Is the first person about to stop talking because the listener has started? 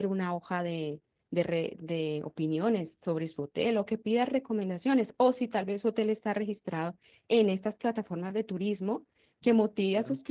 No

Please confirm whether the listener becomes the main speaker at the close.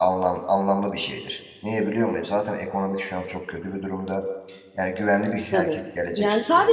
Yes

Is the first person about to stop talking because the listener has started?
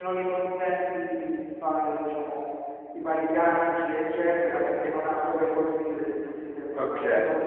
Yes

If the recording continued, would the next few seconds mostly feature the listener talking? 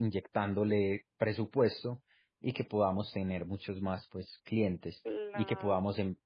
No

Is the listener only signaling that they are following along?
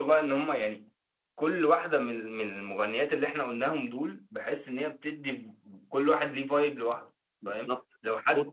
No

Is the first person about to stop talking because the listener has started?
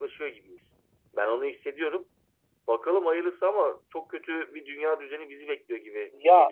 Yes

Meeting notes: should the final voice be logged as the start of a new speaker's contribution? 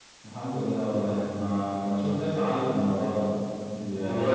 No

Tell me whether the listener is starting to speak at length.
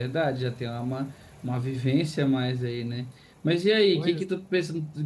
No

